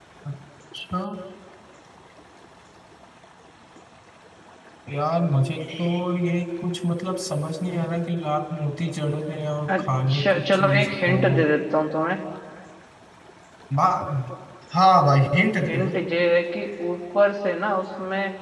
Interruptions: present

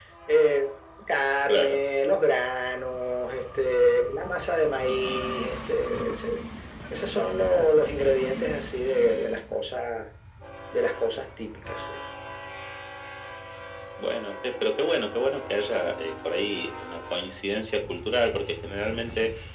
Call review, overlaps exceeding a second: none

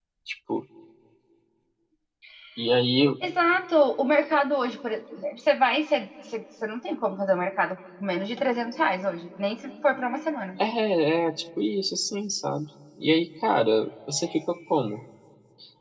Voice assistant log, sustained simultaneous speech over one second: none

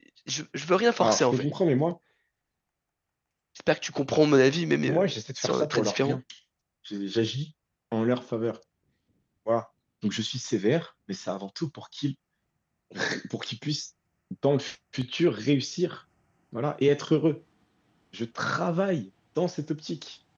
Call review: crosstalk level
present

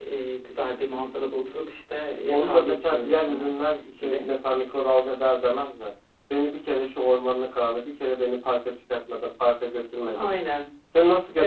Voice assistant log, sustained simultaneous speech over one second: present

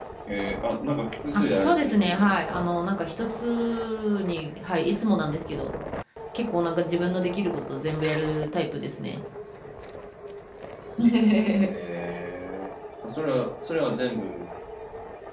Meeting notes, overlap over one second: present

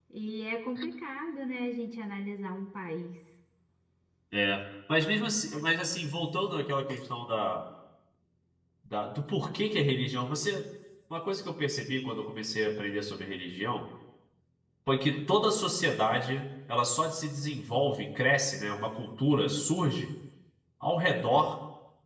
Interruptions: none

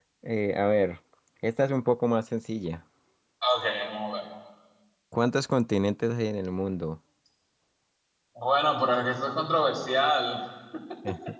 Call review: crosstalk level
none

